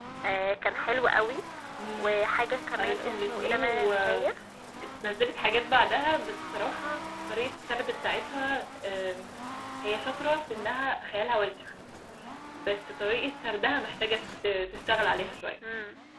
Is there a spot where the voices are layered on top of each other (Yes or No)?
Yes